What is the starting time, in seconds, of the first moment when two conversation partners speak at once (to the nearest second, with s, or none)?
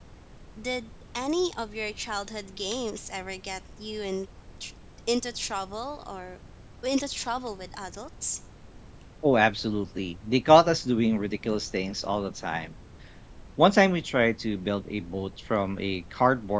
none